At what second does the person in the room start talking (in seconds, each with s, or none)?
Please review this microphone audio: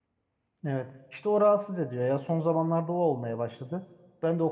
0.6 s